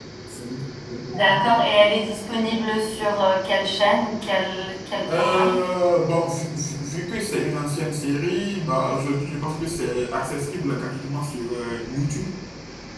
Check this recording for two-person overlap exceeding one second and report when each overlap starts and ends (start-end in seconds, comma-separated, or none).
none